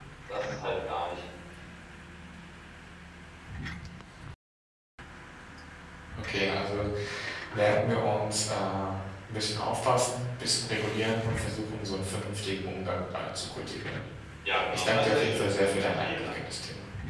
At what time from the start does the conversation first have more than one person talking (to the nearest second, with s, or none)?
15 s